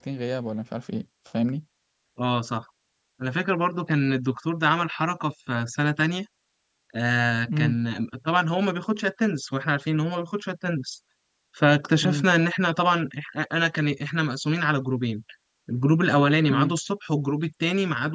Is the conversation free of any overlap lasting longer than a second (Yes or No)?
Yes